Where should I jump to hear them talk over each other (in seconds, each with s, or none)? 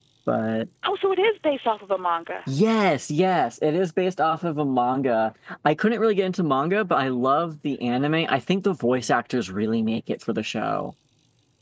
none